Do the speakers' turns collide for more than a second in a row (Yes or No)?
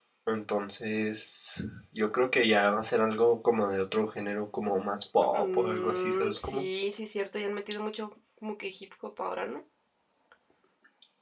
Yes